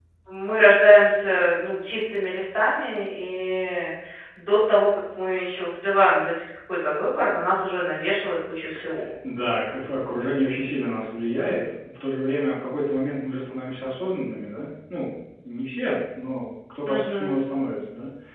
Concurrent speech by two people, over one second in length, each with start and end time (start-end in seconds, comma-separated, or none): none